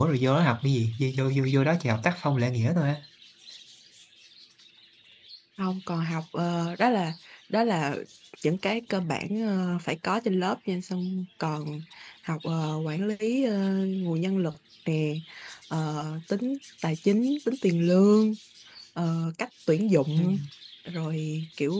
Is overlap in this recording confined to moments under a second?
Yes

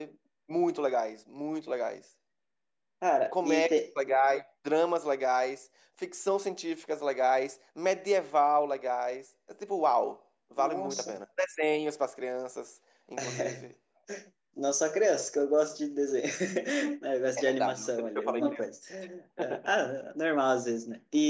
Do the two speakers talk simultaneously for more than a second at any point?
Yes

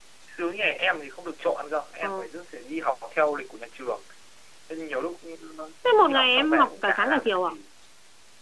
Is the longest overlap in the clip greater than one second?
Yes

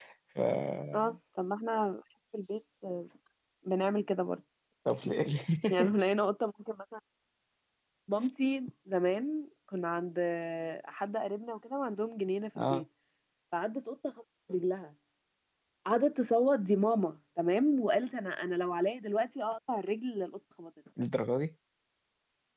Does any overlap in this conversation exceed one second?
No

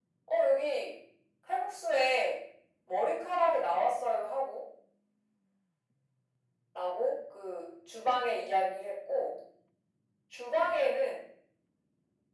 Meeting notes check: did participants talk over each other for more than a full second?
No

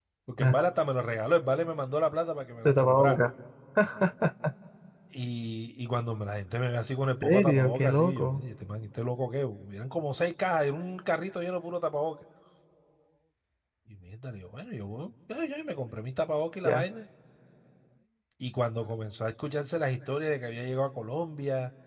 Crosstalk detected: Yes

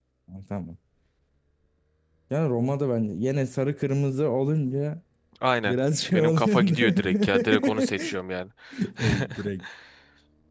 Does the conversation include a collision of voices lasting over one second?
Yes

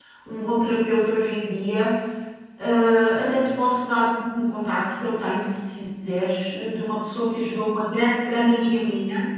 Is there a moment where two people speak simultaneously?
No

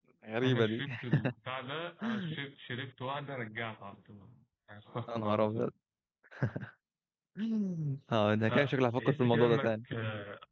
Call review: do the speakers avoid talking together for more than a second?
No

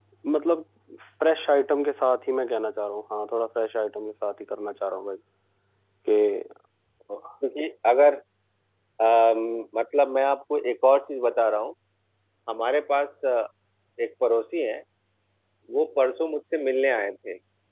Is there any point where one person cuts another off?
No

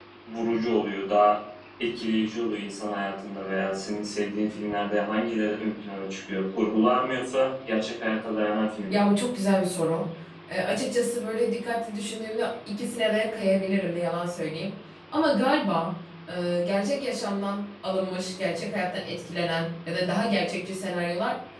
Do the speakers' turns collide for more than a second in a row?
No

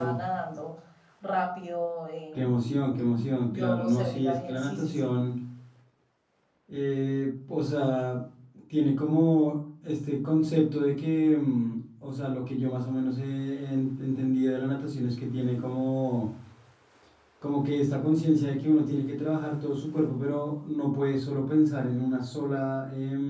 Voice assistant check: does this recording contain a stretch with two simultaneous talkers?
Yes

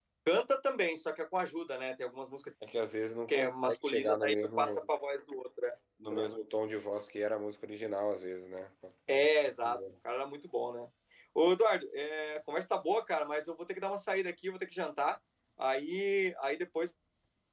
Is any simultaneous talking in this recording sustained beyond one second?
Yes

